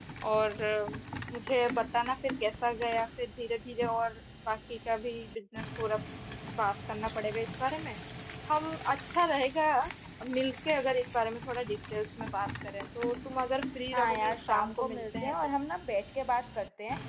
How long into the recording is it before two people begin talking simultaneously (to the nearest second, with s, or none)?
14 s